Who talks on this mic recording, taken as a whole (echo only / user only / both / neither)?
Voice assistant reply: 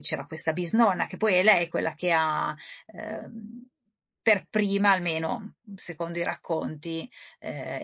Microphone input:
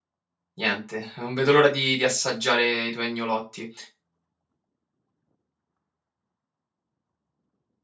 user only